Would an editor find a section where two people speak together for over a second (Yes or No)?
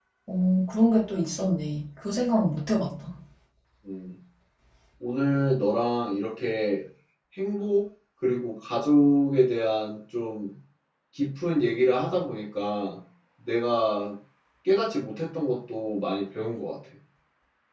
No